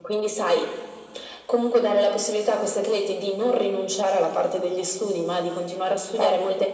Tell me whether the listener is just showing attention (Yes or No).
Yes